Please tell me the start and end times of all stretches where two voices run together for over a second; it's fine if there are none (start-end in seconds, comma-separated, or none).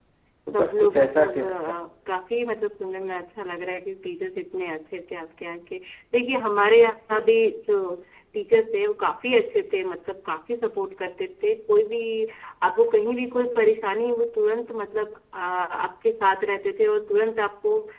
0.5-1.8